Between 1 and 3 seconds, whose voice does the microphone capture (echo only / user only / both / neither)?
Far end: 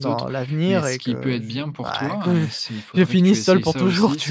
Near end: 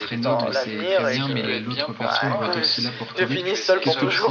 both